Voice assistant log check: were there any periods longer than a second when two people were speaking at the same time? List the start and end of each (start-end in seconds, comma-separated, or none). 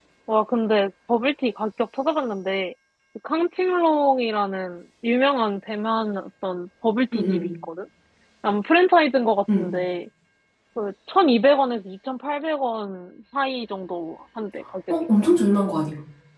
none